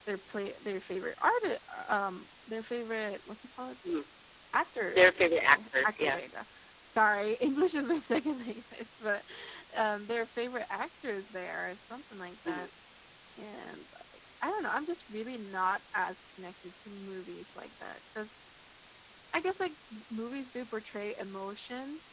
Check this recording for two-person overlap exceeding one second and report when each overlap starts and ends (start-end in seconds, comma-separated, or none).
4.9-6.2